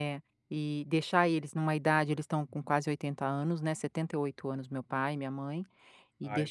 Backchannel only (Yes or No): Yes